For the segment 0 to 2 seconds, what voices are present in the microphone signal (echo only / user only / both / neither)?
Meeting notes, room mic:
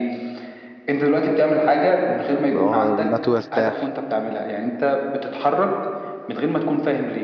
echo only